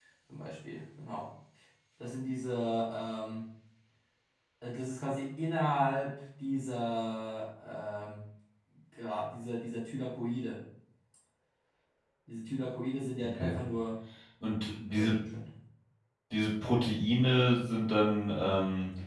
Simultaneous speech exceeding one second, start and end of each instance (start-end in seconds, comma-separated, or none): none